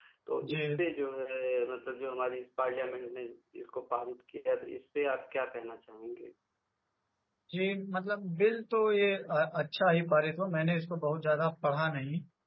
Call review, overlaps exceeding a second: none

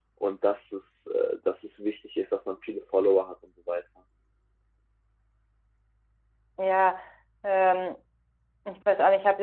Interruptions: none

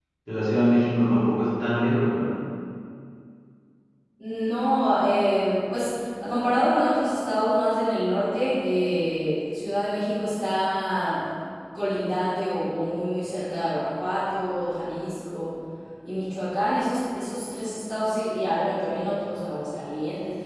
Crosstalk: none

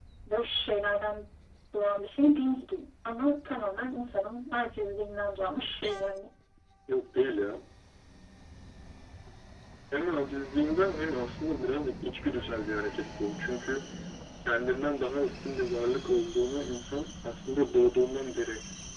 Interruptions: none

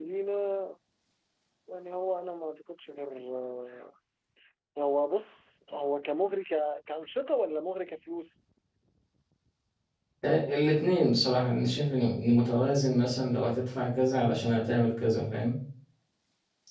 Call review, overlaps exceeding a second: none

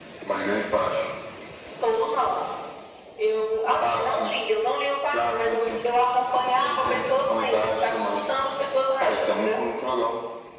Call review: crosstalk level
present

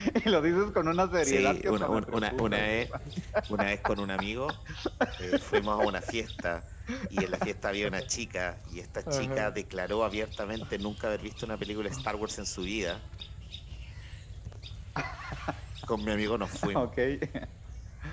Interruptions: present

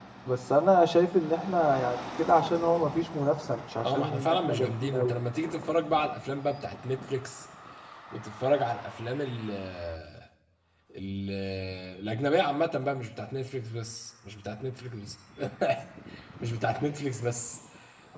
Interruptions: present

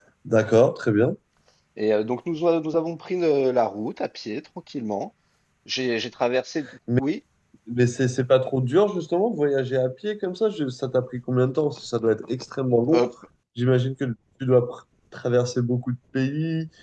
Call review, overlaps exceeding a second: none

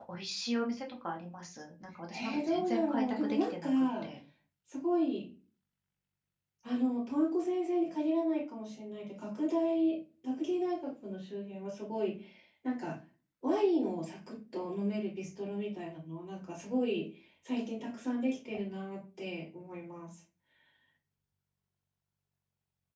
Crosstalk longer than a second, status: present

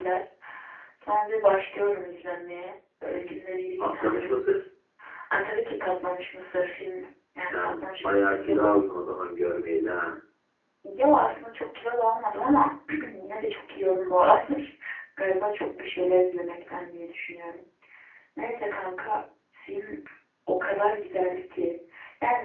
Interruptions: present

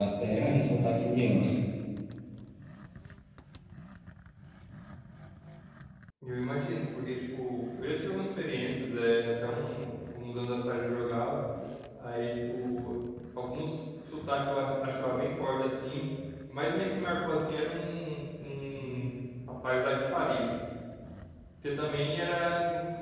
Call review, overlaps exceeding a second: none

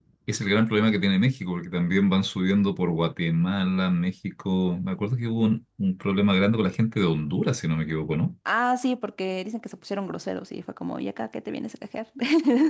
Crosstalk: none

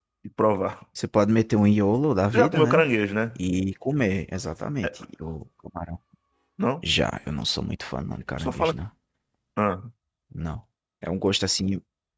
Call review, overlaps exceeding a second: none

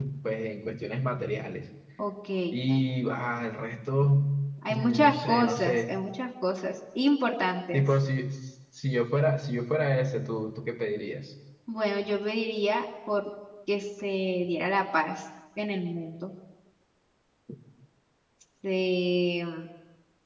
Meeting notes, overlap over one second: present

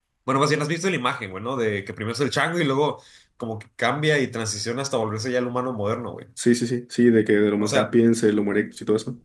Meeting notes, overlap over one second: none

